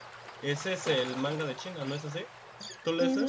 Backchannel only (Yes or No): No